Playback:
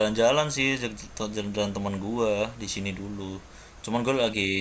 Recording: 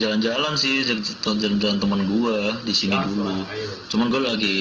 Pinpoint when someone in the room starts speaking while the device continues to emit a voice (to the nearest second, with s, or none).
3 s